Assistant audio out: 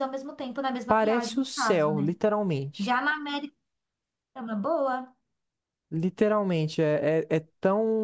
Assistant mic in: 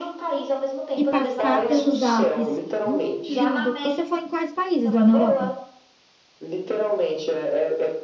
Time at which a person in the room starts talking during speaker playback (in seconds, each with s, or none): 0.9 s